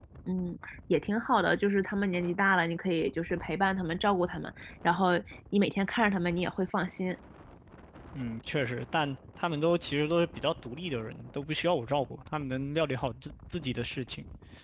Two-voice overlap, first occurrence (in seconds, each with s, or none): none